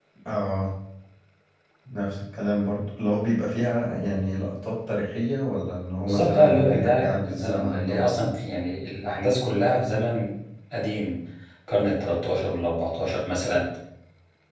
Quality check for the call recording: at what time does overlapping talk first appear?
6.0 s

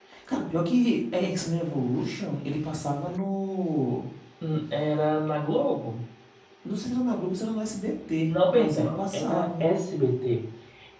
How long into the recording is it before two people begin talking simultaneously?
8.3 s

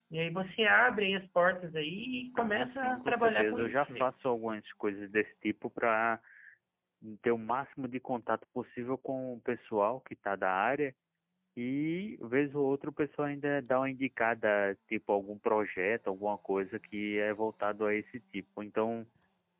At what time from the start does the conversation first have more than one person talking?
2.4 s

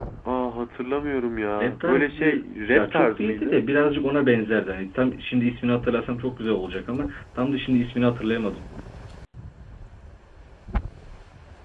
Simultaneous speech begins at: 1.6 s

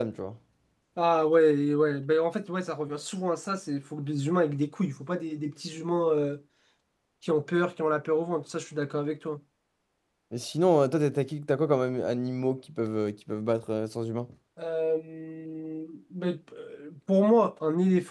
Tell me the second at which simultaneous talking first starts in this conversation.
none

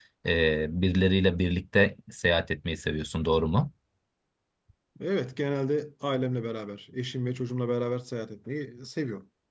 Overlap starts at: none

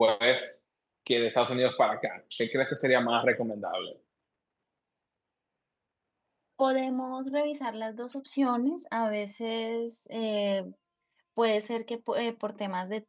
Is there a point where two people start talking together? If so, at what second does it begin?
none

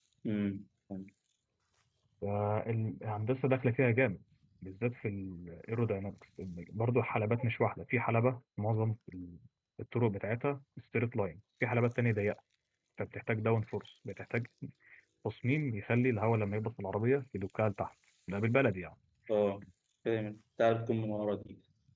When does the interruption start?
none

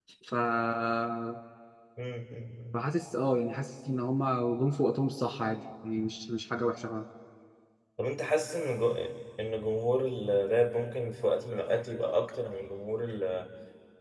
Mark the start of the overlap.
none

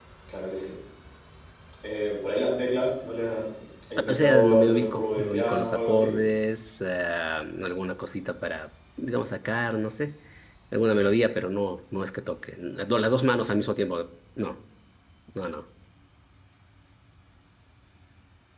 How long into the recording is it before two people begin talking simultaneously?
4.1 s

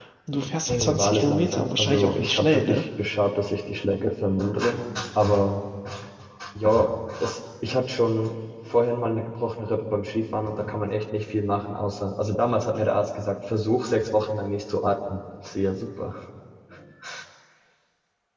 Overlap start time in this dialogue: 0.7 s

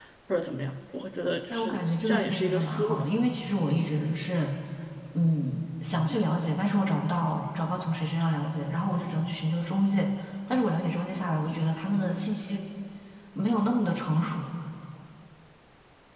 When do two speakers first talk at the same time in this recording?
1.5 s

